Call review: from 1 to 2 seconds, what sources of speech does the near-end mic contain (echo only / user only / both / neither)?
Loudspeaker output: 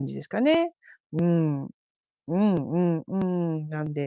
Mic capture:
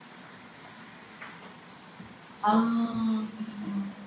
neither